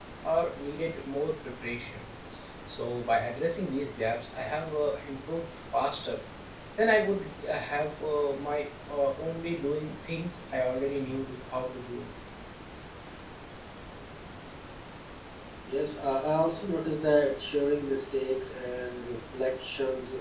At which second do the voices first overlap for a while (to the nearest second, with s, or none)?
none